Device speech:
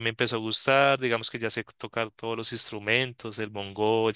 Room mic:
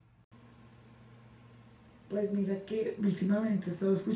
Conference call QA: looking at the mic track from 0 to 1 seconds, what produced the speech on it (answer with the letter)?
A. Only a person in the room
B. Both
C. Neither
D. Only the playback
C